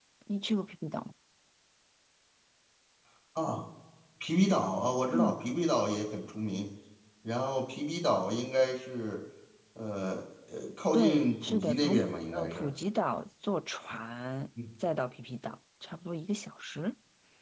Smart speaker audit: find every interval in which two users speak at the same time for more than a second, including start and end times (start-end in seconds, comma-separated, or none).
10.9-12.7